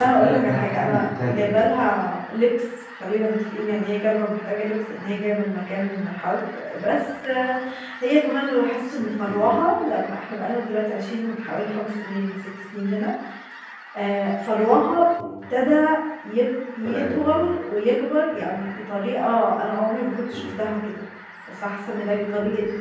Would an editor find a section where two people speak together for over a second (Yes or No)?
Yes